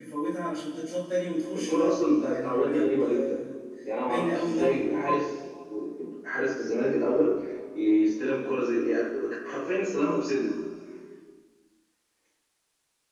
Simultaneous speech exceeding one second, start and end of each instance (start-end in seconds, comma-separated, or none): 1.5-3.4, 4.0-5.3